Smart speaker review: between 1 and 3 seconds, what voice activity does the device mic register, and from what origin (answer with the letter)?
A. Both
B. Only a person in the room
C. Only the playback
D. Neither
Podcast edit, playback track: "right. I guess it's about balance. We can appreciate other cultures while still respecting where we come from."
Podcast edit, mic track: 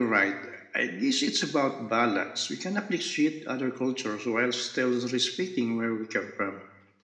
C